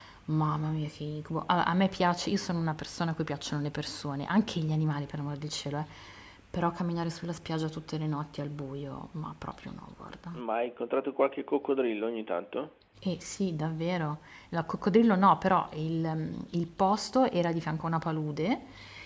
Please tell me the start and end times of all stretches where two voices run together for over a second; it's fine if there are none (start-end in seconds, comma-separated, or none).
none